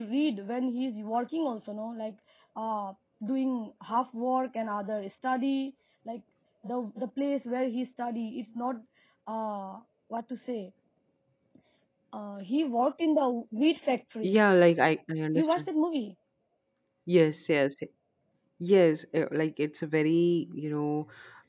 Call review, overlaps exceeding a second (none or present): none